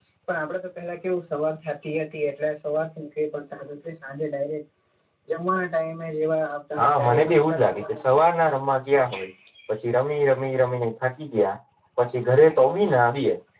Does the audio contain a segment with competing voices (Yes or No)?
Yes